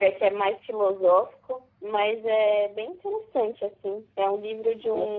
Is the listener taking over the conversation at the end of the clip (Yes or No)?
No